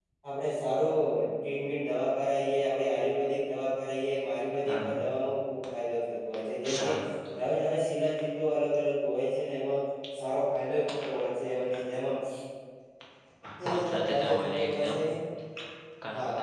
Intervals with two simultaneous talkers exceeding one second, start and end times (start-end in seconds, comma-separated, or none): 13.7-15.0